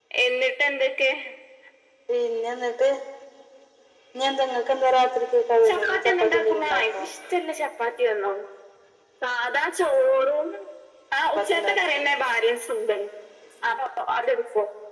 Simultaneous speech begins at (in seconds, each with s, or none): 5.7 s